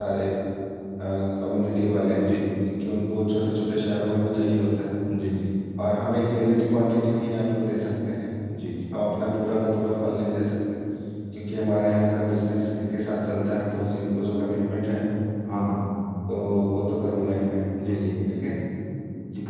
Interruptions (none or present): none